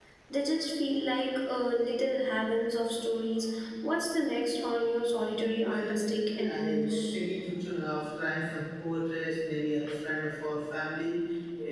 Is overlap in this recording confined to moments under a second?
No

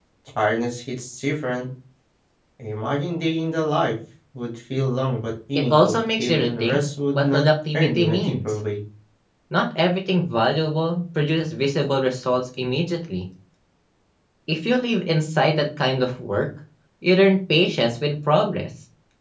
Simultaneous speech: Yes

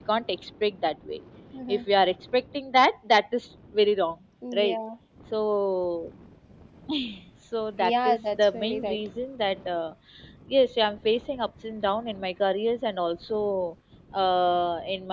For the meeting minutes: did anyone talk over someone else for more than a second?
Yes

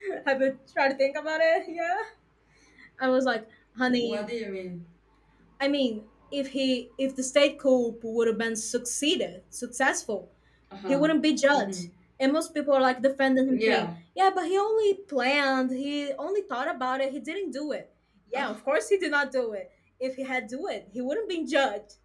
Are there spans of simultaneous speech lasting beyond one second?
No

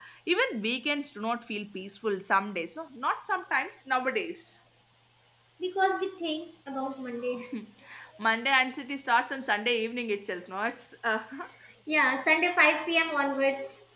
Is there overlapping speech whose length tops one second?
No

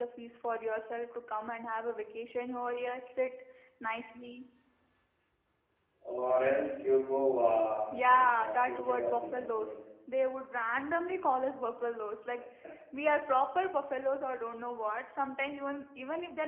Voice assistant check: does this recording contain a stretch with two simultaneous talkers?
Yes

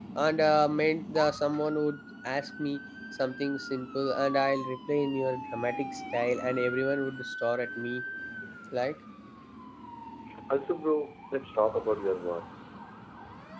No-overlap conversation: Yes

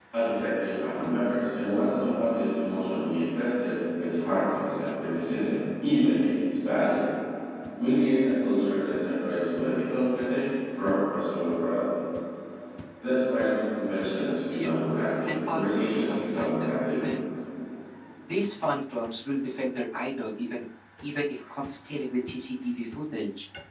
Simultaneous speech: Yes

